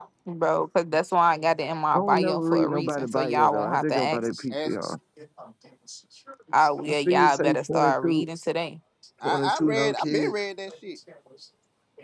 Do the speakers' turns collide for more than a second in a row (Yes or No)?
Yes